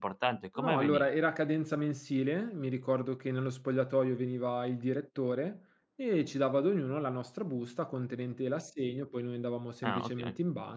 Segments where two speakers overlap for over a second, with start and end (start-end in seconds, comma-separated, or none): none